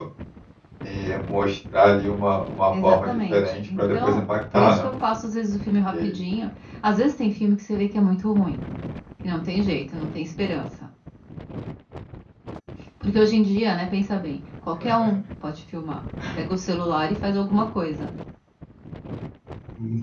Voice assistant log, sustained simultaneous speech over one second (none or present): present